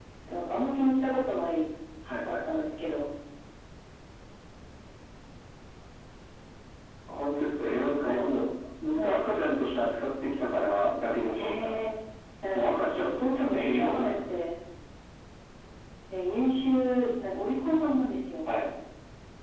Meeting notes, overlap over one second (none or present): present